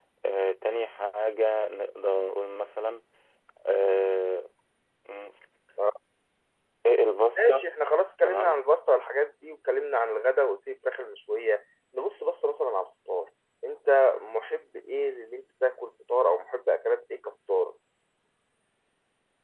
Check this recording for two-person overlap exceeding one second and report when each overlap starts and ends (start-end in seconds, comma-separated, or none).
none